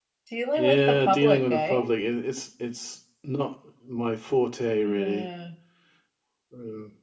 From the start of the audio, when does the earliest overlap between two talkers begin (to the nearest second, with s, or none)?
1 s